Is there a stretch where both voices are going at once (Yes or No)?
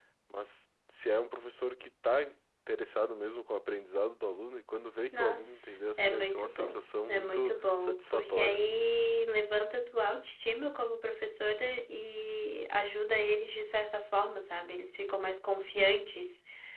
Yes